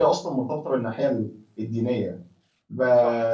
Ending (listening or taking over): listening